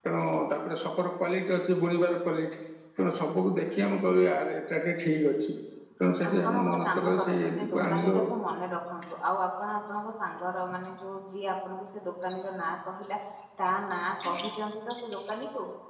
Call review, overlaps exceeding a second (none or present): present